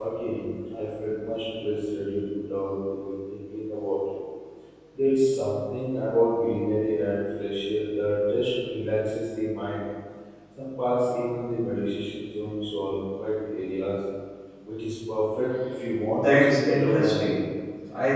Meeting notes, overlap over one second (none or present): present